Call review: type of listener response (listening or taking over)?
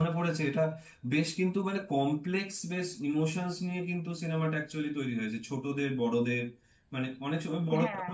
listening